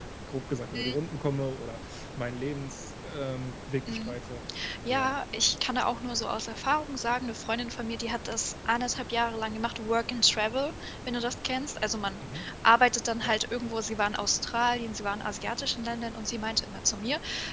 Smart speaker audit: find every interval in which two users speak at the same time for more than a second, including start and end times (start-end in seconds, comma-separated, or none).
none